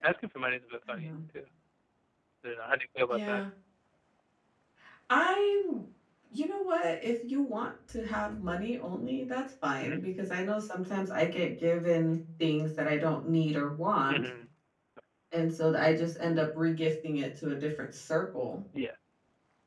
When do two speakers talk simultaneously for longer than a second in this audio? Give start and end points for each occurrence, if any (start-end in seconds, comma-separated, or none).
none